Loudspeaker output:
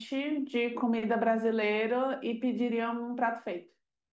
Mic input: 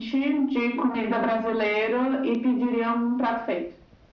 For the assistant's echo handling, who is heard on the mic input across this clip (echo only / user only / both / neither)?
echo only